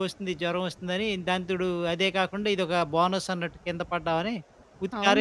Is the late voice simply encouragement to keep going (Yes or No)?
No